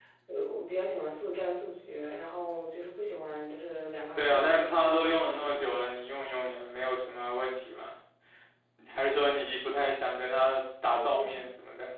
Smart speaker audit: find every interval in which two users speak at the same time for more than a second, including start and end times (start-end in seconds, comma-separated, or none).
4.2-5.8